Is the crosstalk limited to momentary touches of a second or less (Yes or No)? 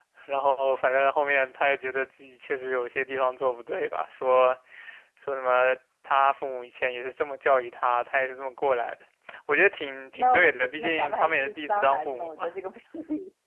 No